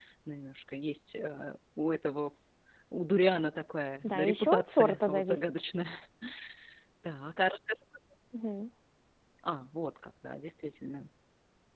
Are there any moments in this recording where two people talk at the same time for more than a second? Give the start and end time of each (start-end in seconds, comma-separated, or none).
4.0-5.5